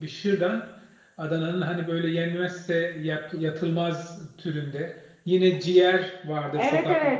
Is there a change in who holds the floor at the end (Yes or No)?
Yes